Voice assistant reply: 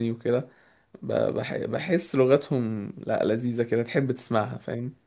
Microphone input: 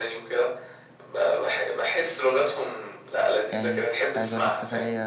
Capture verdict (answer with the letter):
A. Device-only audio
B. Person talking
B